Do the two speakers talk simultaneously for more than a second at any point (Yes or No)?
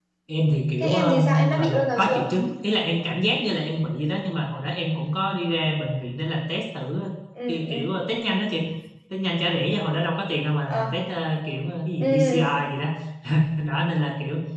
Yes